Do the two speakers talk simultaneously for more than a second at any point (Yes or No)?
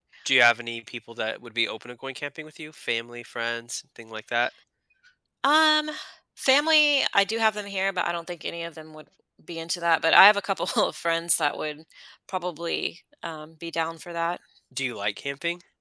No